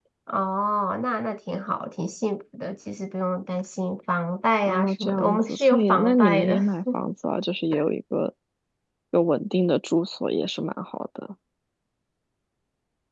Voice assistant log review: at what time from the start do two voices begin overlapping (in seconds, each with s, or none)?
4.7 s